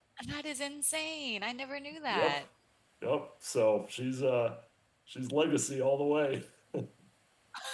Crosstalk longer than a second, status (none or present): none